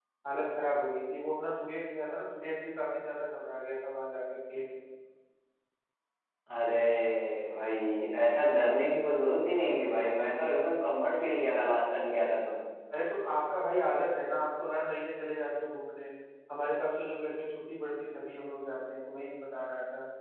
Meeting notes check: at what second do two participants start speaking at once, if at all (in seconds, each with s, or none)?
none